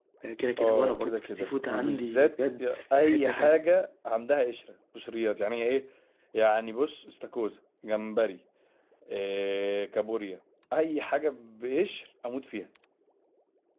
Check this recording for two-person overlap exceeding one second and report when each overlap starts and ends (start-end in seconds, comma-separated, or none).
0.6-3.6